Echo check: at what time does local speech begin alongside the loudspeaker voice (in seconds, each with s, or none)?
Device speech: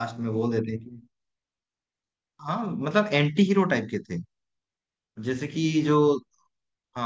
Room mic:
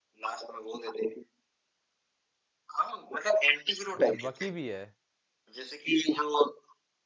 4.0 s